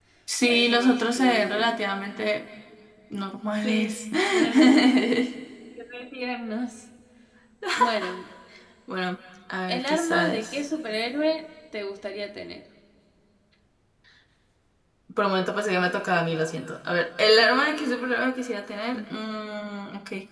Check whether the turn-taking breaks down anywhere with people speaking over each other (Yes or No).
Yes